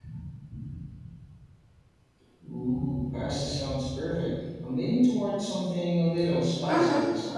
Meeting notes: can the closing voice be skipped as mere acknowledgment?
No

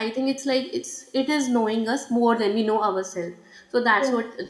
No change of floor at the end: Yes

